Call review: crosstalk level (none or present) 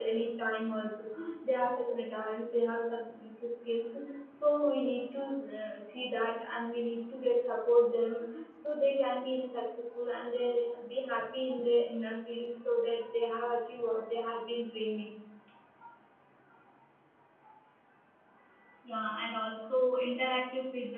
none